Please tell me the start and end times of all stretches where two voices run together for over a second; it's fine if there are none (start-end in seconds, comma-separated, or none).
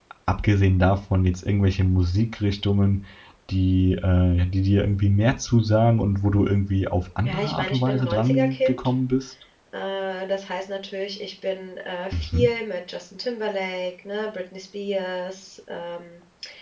7.3-8.9